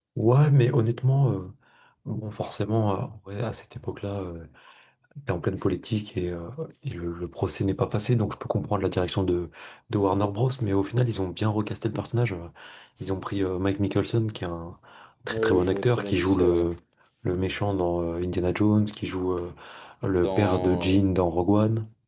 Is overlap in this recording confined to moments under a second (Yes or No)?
No